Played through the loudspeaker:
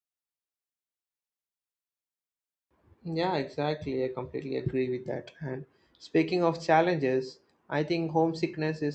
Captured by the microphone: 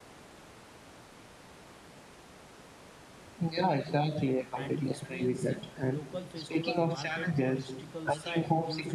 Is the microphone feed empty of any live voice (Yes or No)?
No